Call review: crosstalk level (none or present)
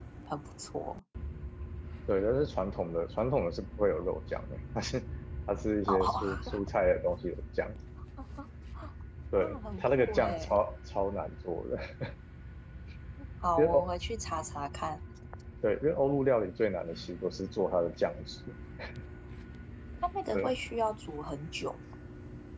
present